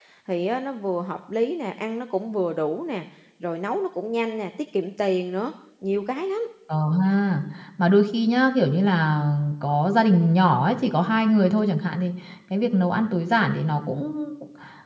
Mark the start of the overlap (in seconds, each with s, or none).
none